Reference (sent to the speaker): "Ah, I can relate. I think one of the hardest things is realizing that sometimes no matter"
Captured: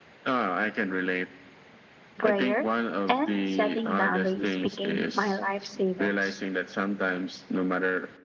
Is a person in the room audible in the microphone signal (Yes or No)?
Yes